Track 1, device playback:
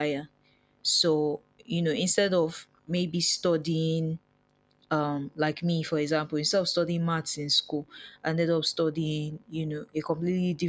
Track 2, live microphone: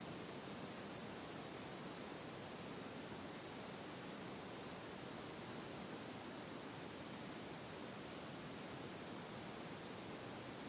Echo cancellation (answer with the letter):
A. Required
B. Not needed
B